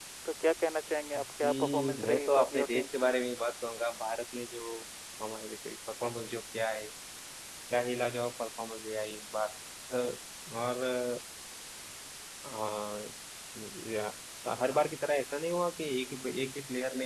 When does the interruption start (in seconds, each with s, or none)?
1.4 s